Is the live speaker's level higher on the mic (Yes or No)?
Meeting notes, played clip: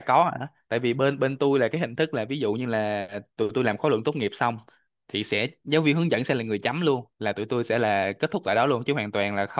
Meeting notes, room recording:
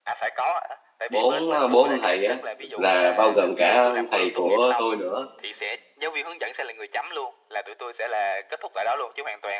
Yes